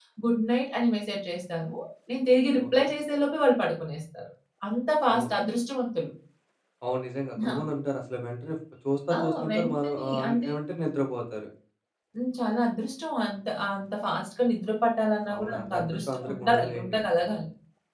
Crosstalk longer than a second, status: present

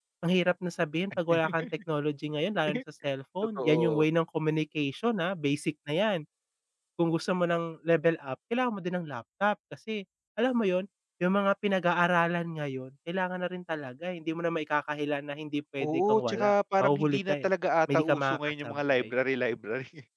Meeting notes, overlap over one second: present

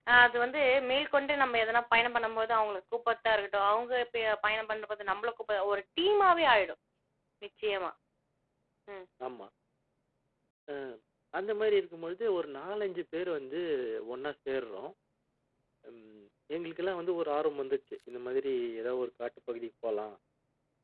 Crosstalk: none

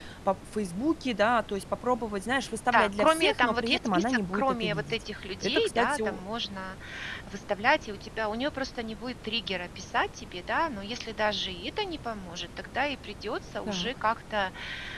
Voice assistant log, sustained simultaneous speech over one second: present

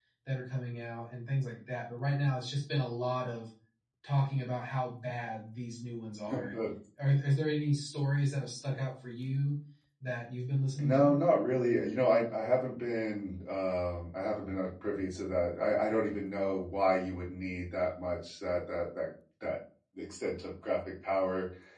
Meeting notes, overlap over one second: none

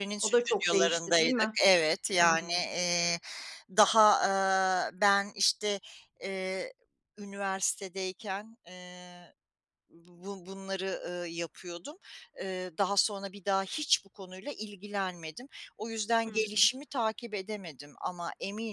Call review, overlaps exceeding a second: present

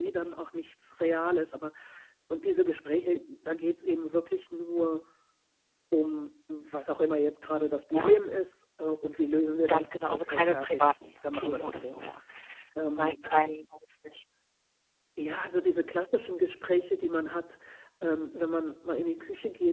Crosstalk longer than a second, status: present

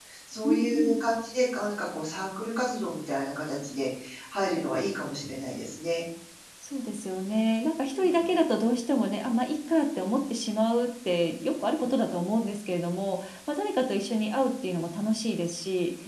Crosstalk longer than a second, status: none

